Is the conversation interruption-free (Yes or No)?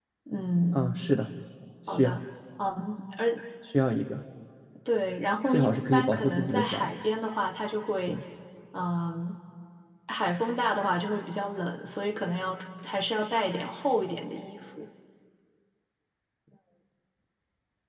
No